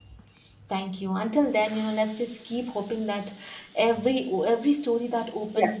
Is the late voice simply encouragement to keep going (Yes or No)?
Yes